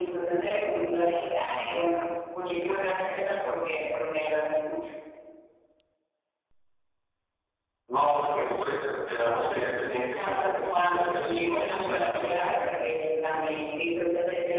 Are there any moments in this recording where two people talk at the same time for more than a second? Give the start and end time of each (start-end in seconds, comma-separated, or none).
10.2-12.3